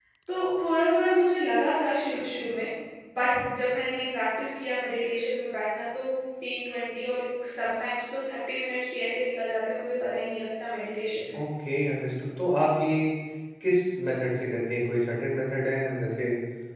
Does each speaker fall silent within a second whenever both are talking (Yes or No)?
Yes